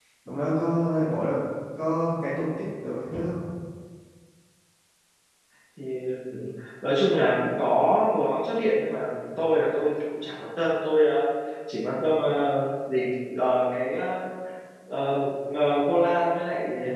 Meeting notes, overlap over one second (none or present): none